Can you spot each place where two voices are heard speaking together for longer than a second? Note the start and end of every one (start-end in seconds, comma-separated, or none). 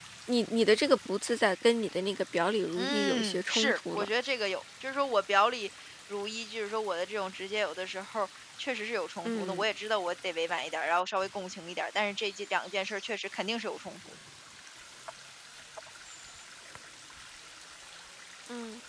2.8-4.1